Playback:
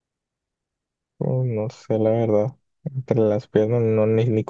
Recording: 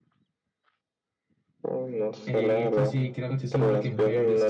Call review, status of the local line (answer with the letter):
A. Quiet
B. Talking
B